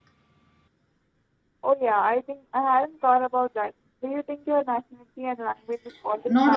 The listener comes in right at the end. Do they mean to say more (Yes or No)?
Yes